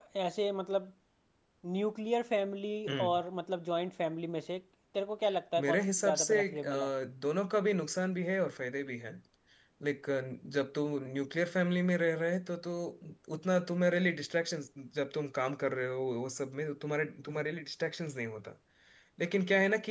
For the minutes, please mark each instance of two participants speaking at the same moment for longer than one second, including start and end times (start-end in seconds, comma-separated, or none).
5.6-6.9